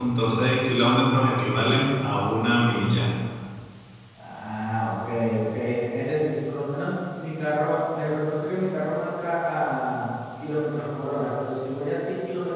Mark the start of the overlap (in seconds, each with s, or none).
none